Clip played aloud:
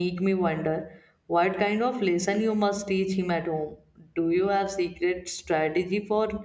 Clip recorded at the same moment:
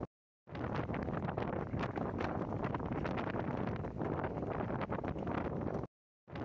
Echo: none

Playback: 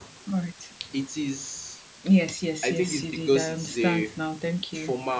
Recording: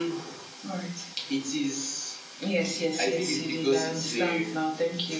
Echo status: present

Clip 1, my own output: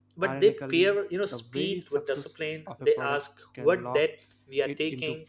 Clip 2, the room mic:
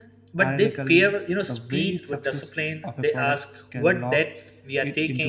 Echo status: present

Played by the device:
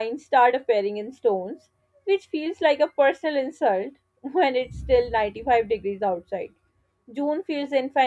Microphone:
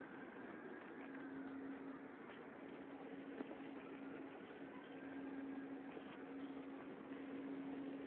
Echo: none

